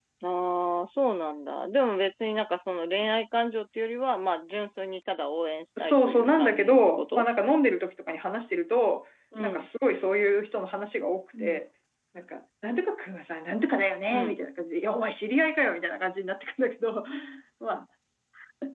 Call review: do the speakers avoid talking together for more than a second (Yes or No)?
No